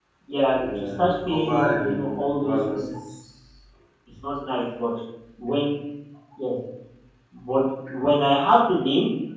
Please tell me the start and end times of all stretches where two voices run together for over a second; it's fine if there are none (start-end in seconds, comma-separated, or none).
0.5-2.9